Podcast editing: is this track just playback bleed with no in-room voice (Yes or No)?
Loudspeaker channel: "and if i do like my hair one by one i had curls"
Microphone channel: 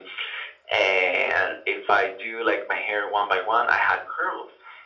Yes